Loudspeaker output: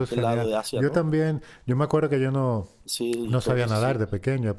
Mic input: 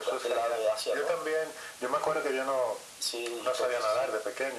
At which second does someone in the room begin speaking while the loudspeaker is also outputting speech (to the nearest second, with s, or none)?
none